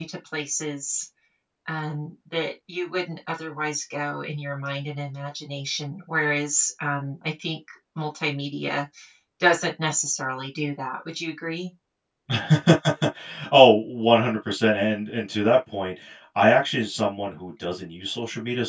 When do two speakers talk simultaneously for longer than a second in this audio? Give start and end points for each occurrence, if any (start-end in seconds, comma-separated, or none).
none